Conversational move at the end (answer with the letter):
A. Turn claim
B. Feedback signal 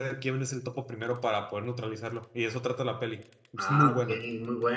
A